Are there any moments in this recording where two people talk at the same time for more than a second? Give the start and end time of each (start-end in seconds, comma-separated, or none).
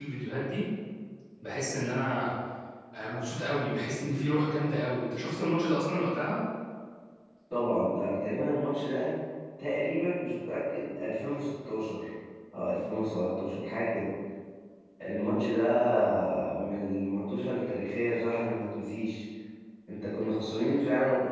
none